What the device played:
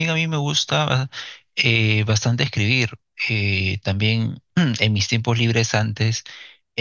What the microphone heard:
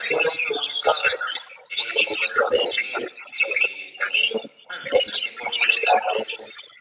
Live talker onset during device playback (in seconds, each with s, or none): none